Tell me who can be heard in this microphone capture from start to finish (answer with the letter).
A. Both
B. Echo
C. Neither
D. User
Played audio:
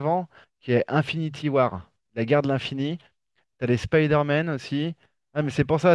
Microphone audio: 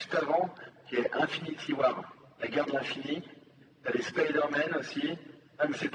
B